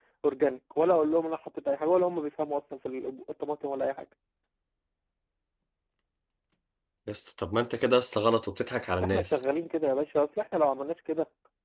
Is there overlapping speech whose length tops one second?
No

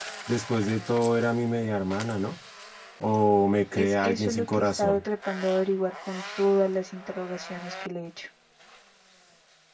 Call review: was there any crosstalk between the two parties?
Yes, from 3.7 s

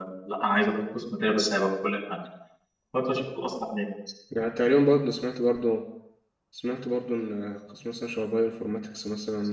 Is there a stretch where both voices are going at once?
No

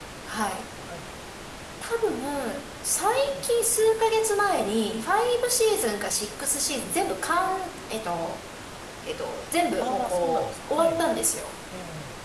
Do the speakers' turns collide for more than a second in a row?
Yes, from 9.8 s

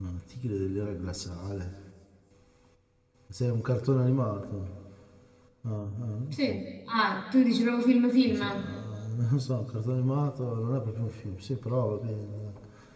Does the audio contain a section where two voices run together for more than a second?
No

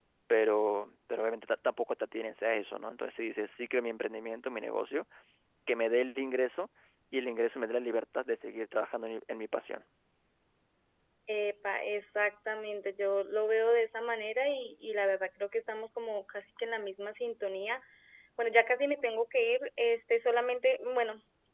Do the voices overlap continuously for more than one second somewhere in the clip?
No

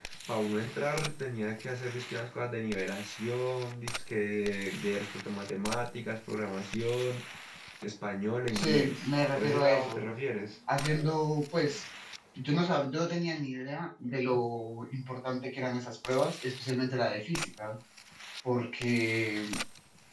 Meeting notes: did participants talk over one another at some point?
Yes, from 8.5 s

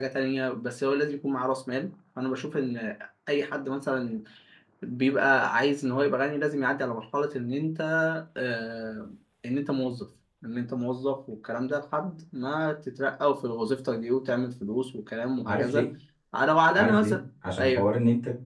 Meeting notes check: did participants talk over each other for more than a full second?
No

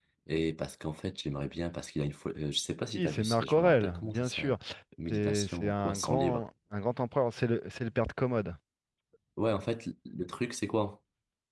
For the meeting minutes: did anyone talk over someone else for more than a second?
Yes, from 2.9 s

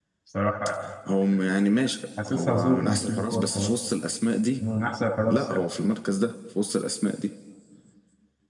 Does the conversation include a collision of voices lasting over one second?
Yes, from 2.3 s

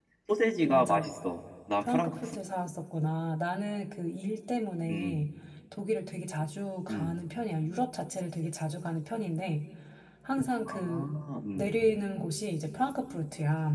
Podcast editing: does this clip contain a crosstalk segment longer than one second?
No

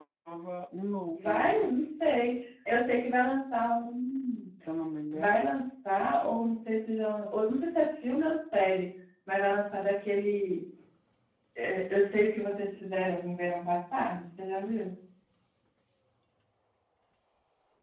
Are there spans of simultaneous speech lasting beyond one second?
No

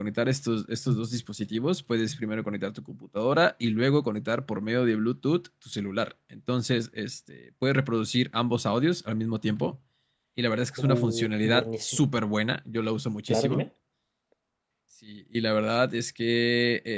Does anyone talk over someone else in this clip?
Yes, from 10.8 s

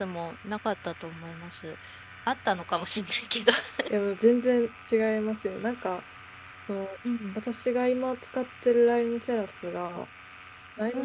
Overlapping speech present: No

